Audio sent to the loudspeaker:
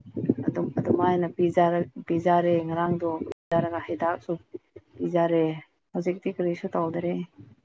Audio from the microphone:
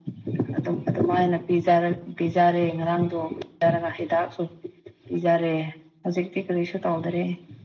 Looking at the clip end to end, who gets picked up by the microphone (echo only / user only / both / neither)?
echo only